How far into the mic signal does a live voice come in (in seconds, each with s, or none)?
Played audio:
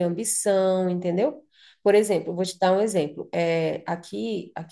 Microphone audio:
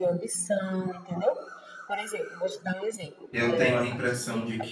3.3 s